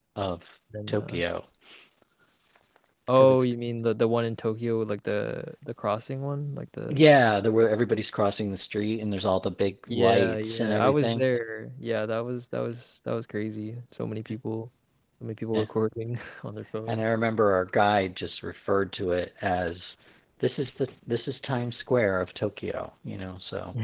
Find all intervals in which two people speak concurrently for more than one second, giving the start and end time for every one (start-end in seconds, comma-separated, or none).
9.9-11.2